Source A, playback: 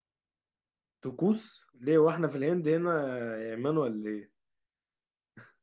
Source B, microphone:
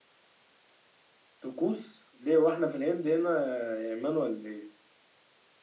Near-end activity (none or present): none